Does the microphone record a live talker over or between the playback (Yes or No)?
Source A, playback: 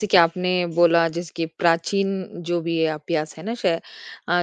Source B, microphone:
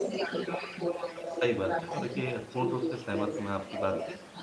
Yes